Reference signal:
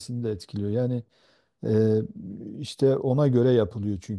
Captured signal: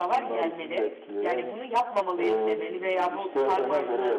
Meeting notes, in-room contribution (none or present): present